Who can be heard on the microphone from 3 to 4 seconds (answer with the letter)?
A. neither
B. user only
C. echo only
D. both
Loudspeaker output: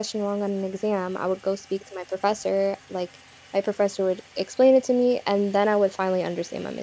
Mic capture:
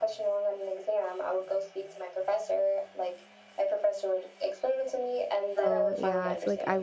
C